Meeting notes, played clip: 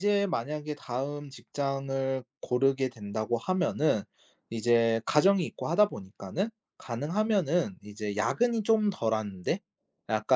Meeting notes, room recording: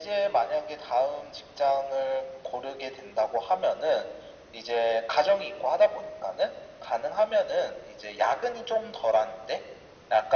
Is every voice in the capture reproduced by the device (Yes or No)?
Yes